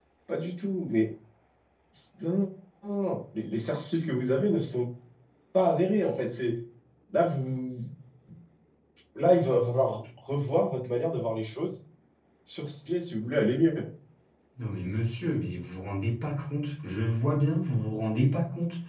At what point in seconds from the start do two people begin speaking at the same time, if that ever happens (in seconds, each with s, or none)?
none